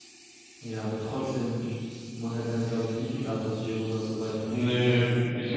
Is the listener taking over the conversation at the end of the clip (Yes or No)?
Yes